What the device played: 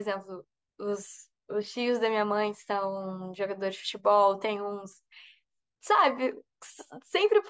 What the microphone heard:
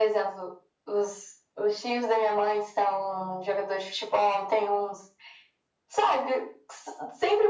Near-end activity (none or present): none